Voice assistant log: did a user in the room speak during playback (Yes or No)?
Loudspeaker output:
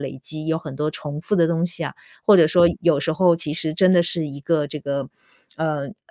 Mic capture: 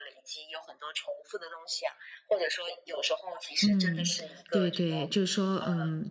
Yes